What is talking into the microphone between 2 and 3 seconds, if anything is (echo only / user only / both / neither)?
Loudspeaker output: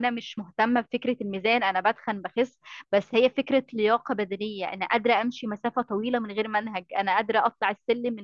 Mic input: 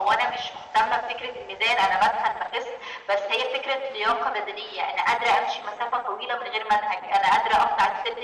echo only